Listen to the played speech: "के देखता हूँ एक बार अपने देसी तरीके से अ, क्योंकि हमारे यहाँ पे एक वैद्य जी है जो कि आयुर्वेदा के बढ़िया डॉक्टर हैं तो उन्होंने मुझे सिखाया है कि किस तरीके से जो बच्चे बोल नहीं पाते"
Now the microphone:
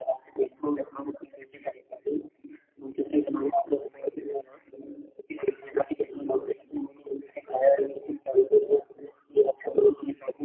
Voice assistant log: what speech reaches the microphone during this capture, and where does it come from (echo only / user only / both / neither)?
echo only